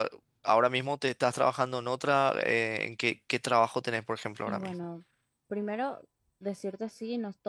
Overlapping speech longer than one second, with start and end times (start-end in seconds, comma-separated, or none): none